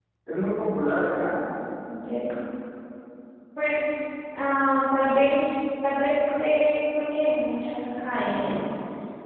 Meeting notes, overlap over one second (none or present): none